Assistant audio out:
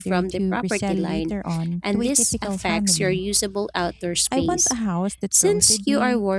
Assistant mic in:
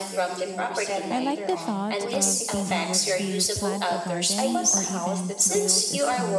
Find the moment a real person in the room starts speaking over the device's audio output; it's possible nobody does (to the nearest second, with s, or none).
1 s